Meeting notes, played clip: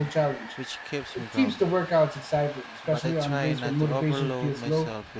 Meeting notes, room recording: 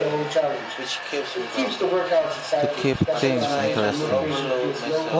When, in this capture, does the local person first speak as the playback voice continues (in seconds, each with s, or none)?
2.6 s